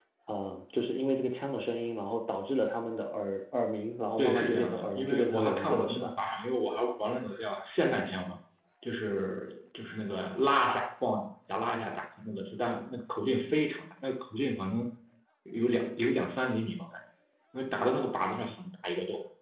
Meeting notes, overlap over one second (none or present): present